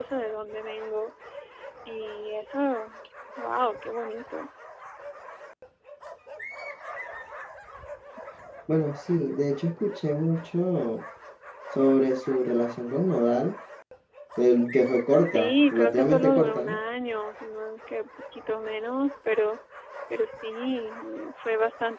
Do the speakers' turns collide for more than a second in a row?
Yes, from 15.3 s

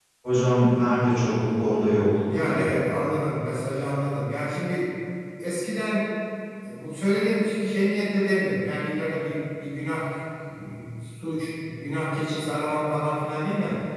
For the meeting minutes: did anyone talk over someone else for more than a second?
No

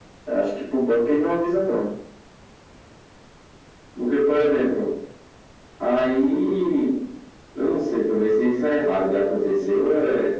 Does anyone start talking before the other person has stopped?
No

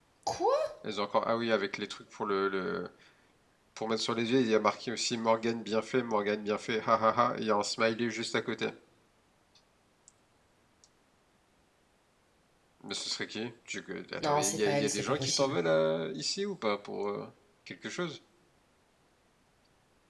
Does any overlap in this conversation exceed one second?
Yes, from 14.2 s

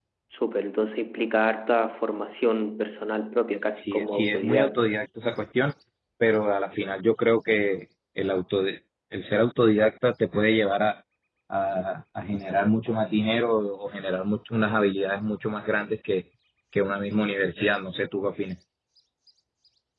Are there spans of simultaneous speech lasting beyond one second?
Yes, from 3.8 s

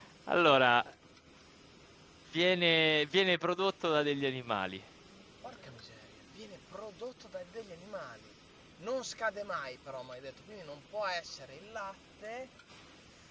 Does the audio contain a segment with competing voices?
No

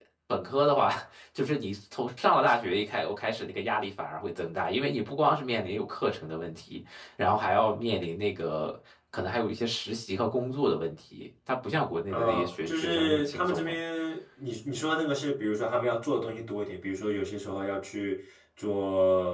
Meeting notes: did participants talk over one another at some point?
Yes, from 12.1 s

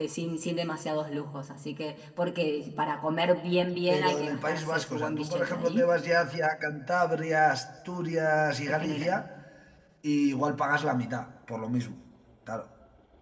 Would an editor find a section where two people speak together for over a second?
Yes, from 3.9 s

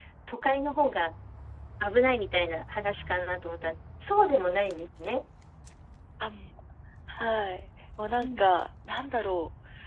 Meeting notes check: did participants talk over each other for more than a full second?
No

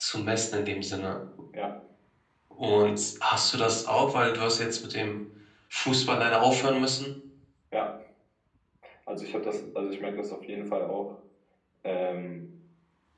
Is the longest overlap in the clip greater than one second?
No

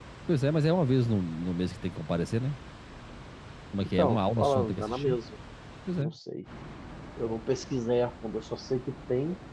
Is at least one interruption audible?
Yes, from 3.8 s

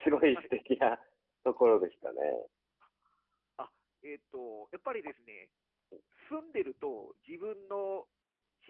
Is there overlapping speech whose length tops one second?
No

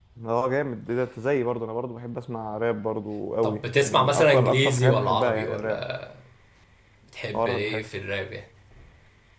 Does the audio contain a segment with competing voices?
Yes, from 3.4 s

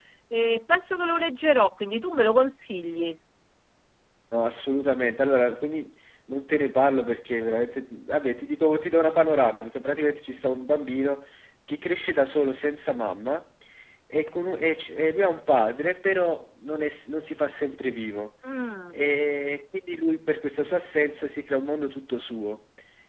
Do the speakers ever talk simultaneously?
No

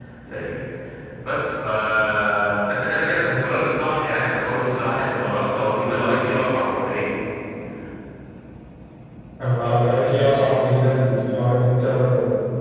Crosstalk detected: No

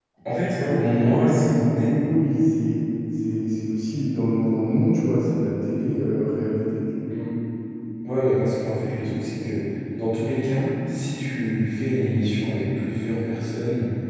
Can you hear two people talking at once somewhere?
Yes, from 0.6 s

